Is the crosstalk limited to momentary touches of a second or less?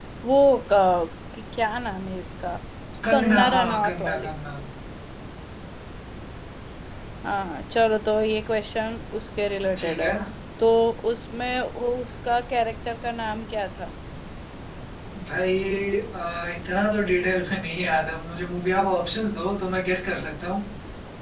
No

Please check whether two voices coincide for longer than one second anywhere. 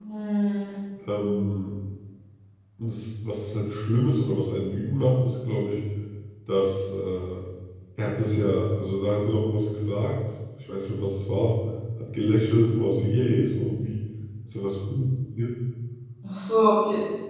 No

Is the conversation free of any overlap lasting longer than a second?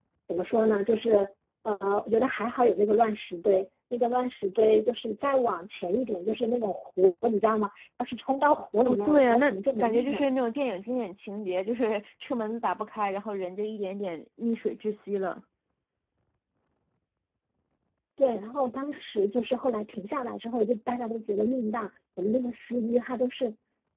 No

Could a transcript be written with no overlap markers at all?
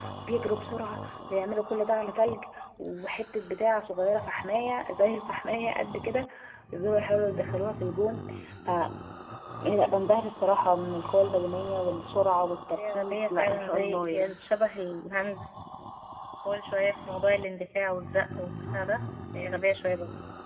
No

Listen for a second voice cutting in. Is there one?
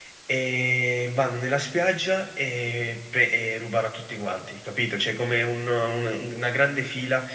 No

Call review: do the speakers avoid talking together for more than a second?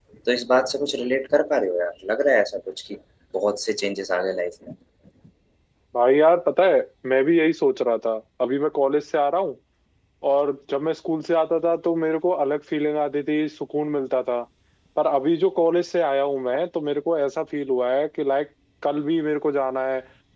Yes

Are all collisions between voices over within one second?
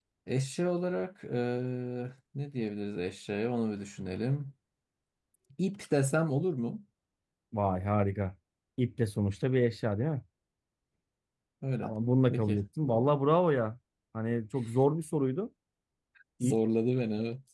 Yes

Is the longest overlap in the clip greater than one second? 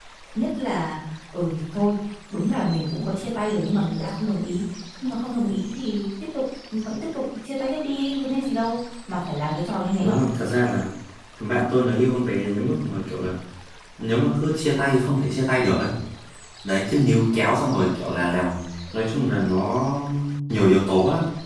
No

